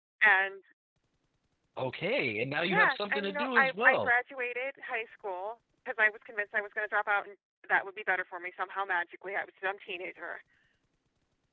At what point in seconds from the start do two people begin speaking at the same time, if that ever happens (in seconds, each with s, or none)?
2.7 s